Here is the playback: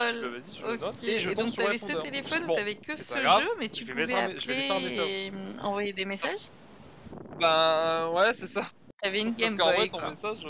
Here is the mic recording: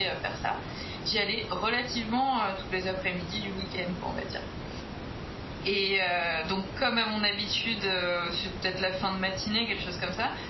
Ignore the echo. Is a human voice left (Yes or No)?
Yes